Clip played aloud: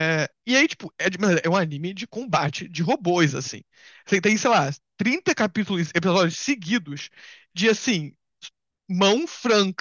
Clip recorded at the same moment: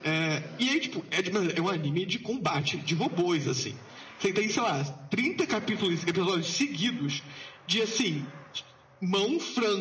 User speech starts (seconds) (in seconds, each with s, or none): none